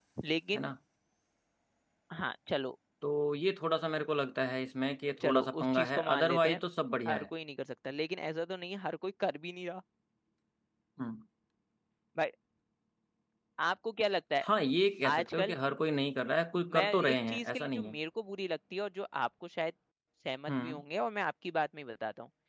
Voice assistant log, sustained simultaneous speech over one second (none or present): present